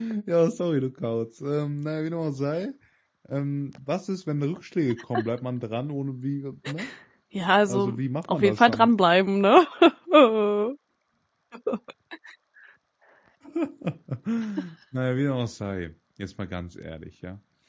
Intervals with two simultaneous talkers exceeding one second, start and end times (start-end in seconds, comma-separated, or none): 7.7-8.9